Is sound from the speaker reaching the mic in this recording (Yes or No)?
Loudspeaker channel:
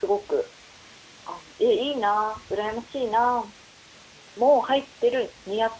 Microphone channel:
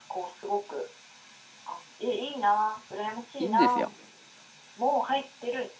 Yes